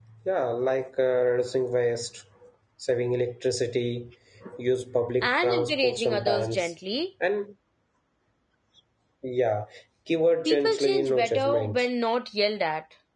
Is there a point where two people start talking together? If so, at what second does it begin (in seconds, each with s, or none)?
5.2 s